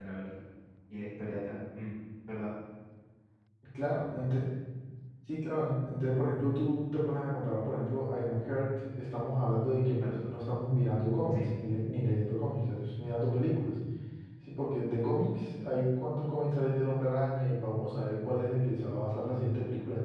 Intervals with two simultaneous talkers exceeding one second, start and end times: none

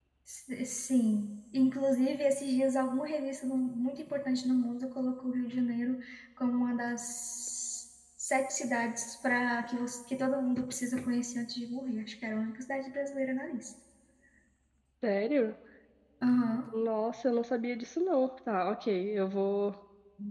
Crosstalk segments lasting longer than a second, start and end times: none

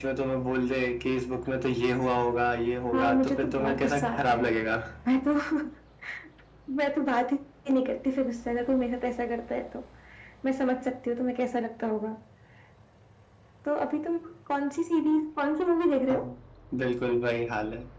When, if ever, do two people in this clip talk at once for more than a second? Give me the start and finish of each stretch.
2.9-4.5

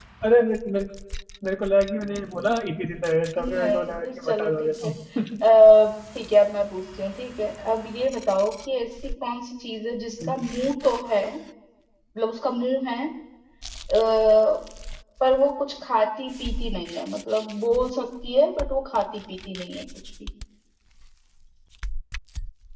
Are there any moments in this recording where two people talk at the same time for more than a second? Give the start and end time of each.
3.4-4.9

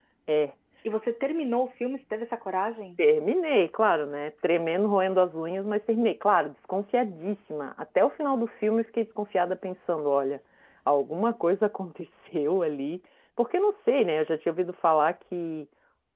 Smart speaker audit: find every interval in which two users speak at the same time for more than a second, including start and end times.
none

